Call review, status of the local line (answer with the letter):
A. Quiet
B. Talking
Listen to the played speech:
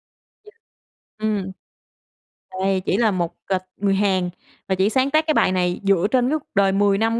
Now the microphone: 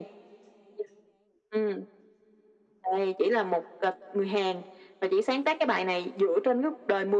A